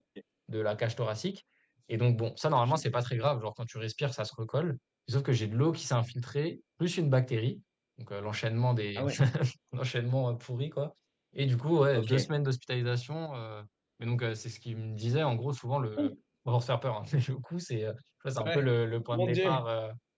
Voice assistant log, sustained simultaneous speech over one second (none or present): none